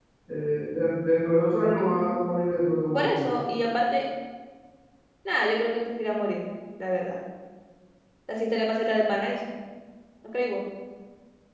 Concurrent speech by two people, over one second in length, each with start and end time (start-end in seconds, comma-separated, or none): 1.8-3.3